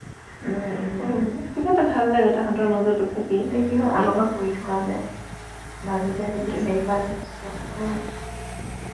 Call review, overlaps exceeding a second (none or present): none